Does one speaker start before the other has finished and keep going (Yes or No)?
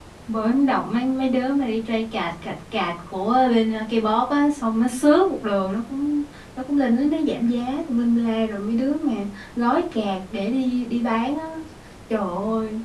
No